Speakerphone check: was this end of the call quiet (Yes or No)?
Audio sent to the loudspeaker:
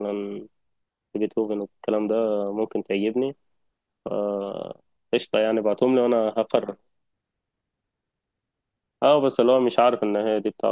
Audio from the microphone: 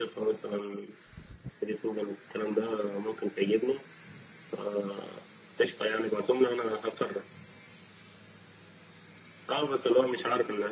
Yes